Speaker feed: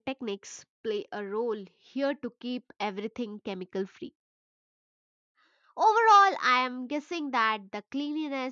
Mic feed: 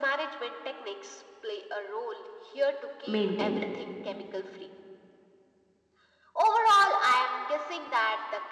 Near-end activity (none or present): present